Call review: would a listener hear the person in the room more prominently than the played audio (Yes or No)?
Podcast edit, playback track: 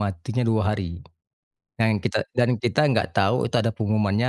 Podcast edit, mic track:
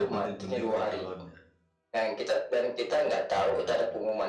No